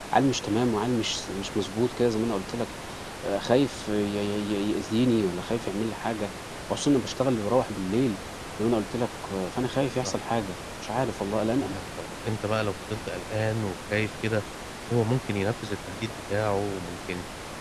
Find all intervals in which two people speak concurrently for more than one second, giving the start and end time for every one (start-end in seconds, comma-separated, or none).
none